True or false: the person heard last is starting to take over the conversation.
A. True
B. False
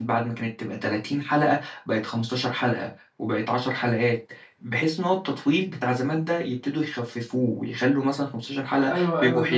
A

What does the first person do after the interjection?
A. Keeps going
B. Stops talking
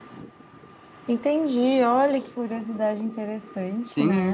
B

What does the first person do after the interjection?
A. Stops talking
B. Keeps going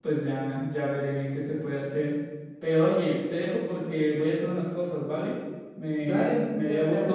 A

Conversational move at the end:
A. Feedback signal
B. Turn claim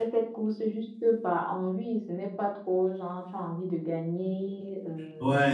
A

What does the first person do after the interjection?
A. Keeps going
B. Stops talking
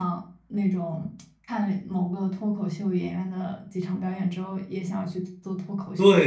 B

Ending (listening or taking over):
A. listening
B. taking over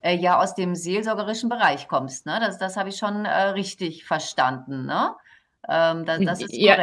B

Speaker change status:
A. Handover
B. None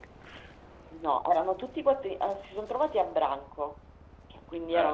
B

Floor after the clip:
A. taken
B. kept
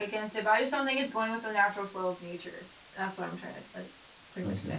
A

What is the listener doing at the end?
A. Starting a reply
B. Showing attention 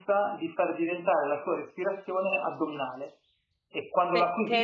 A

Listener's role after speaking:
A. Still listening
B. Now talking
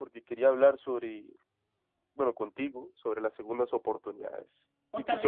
B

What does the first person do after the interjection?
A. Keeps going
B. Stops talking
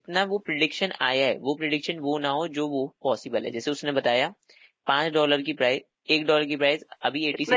B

